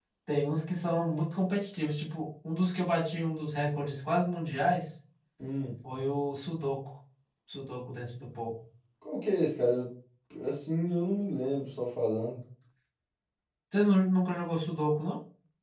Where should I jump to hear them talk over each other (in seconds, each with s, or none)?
none